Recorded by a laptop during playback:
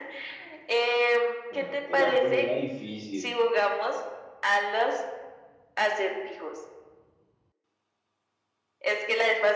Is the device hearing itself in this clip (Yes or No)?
Yes